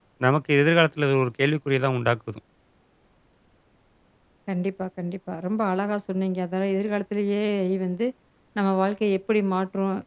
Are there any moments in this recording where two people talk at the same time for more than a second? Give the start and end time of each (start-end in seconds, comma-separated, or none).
none